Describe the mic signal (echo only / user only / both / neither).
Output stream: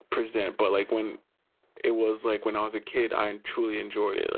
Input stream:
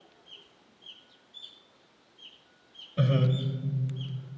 user only